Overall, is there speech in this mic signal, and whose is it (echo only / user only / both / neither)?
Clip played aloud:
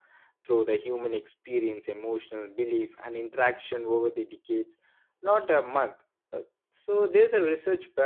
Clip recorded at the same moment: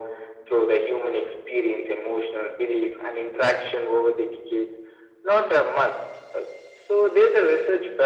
echo only